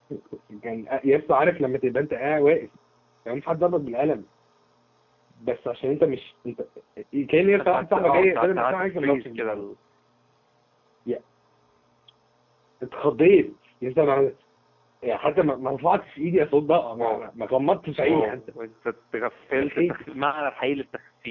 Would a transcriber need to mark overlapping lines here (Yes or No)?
Yes